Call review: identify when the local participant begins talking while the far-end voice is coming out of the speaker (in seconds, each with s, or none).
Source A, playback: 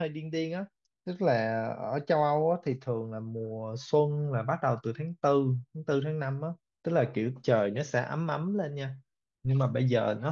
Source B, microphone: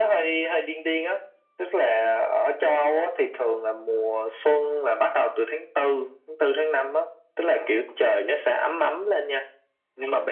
none